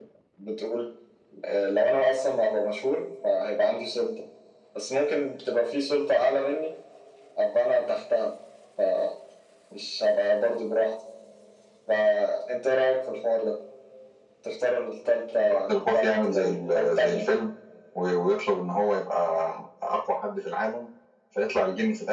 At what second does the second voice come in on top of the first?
15.4 s

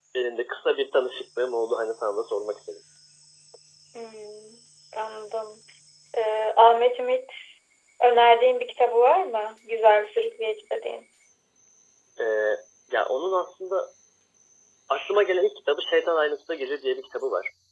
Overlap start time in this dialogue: none

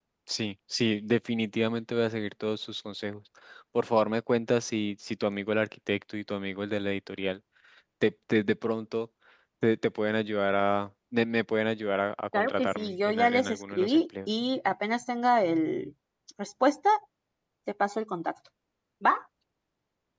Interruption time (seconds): 12.3 s

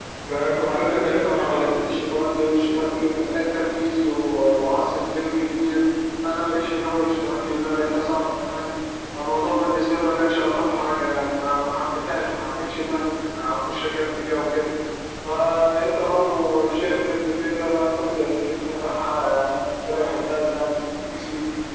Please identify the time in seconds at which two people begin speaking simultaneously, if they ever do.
0.6 s

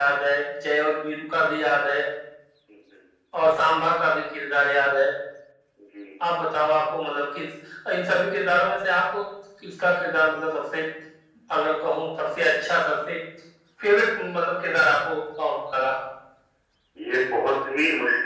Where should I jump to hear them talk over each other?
none

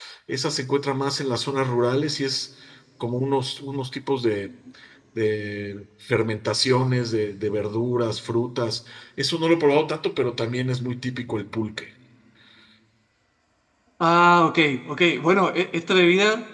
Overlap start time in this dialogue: none

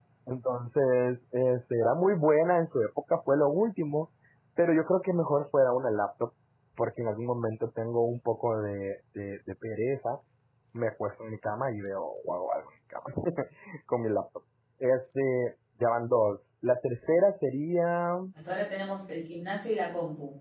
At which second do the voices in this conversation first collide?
none

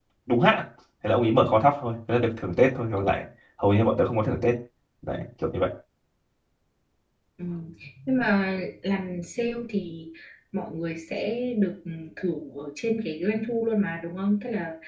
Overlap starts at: none

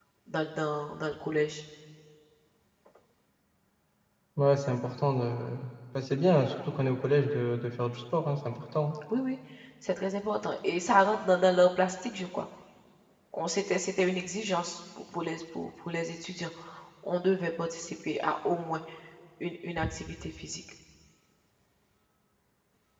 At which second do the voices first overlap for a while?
none

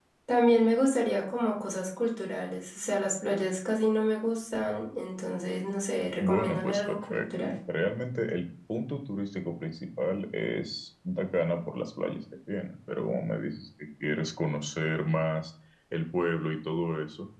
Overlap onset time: 6.2 s

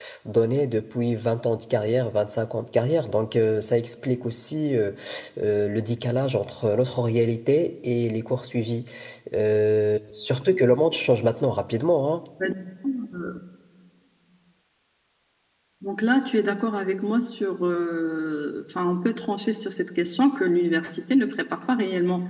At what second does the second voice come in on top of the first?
none

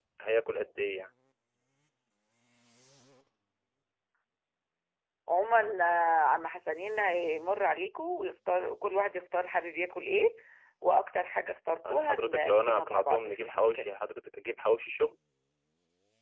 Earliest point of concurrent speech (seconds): 11.8 s

